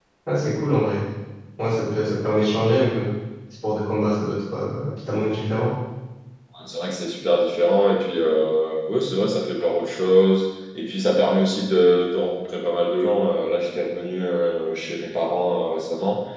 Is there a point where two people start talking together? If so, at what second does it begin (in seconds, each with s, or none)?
none